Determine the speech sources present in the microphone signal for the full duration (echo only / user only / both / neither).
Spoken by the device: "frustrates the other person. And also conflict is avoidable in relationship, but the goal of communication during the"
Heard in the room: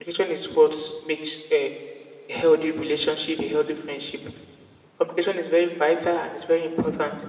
user only